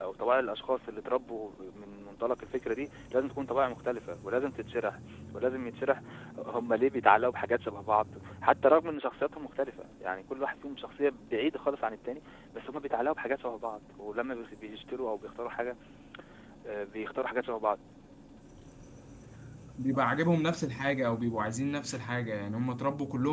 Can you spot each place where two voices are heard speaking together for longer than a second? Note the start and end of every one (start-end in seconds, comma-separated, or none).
none